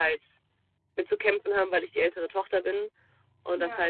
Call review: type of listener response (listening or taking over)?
listening